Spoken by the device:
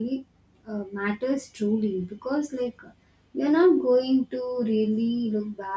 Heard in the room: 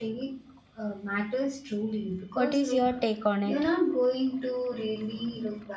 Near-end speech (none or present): present